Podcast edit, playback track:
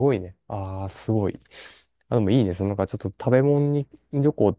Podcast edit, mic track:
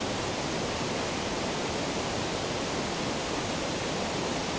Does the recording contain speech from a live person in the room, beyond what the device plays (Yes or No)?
No